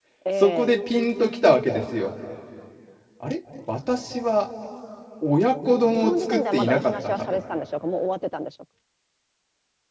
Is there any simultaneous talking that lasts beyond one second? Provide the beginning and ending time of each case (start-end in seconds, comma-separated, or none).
6.0-7.2